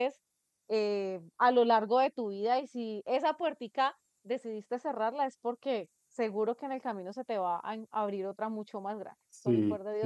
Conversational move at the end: taking over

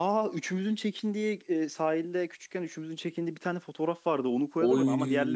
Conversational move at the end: listening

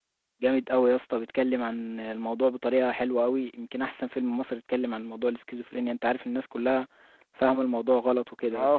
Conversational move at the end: taking over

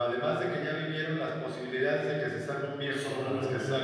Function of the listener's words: listening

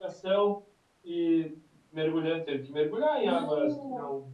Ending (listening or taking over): listening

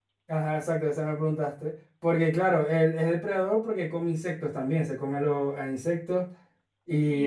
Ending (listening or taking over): taking over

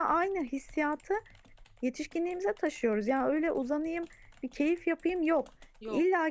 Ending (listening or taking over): listening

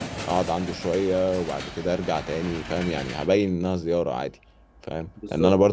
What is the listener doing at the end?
listening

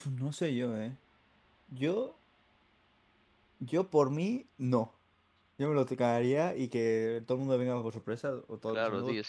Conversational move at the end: taking over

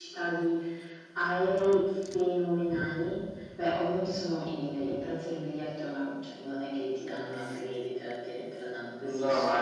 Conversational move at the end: taking over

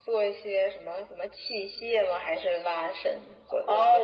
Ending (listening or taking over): taking over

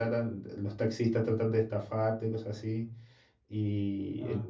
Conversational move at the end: listening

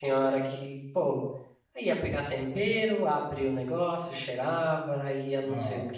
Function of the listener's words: listening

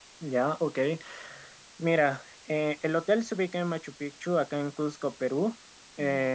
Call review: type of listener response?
listening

